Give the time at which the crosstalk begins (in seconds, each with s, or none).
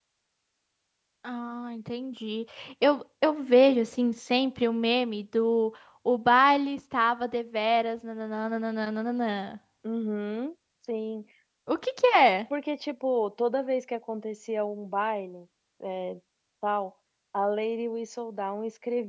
none